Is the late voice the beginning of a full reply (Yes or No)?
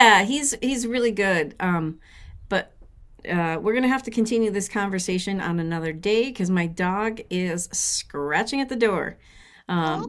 Yes